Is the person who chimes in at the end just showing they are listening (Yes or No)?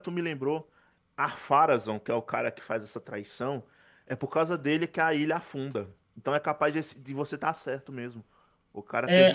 No